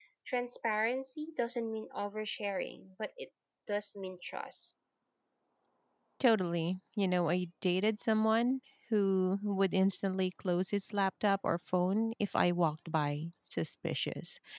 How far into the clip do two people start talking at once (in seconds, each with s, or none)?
none